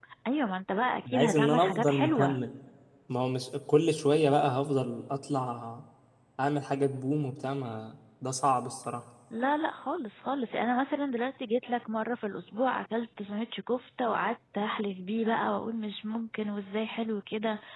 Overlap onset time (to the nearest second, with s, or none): 1 s